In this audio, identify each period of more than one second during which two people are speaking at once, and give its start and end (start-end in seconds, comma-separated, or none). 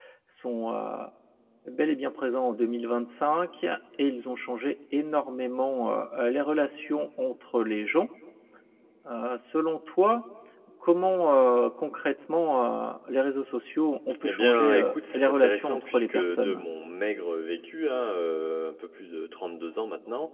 14.2-16.6